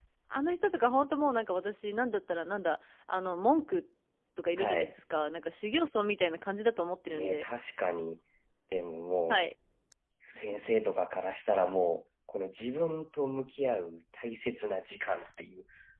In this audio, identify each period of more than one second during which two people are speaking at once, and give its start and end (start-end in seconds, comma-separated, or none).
none